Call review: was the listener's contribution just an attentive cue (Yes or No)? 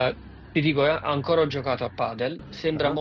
Yes